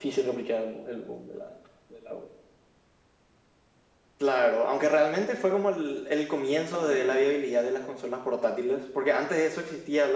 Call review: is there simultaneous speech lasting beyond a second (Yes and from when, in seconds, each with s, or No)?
No